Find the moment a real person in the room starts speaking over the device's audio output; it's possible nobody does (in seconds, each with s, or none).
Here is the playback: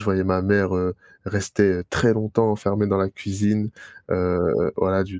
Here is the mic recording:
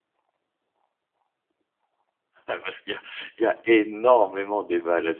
2.5 s